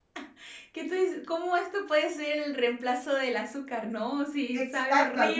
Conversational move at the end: taking over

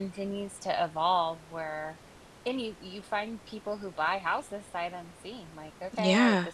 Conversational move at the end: listening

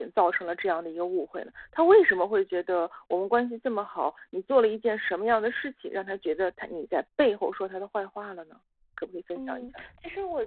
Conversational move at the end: taking over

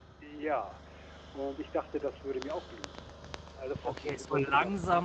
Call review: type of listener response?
taking over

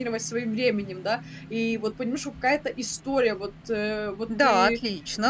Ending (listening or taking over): taking over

